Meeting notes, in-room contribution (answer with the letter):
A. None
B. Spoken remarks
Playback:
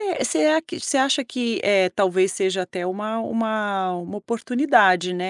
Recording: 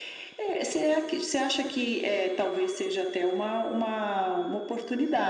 A